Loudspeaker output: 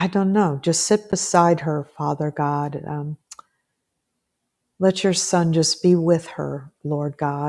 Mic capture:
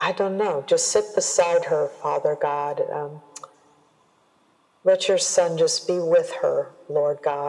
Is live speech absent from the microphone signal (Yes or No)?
Yes